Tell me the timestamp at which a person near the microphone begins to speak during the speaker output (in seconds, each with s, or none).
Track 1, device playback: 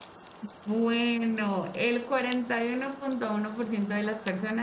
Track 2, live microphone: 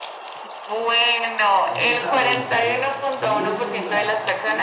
1.6 s